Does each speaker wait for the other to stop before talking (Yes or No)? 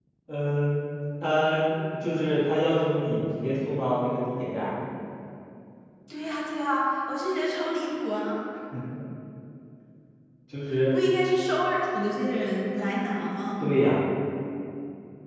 Yes